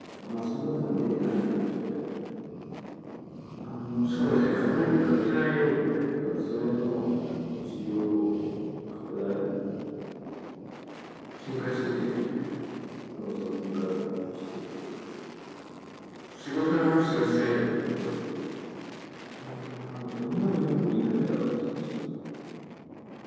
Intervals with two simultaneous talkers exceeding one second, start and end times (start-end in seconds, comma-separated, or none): 4.0-5.4